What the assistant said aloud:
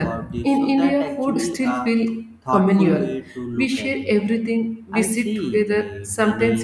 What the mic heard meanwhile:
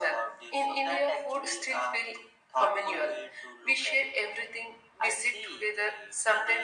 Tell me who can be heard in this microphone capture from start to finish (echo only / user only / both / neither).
echo only